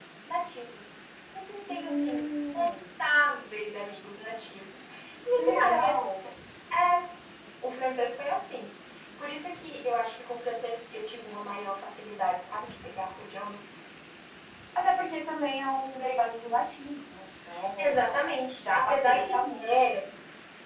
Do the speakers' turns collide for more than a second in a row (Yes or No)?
Yes